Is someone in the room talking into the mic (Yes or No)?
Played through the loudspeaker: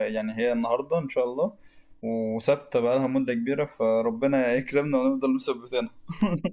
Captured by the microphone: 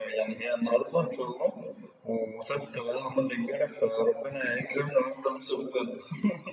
No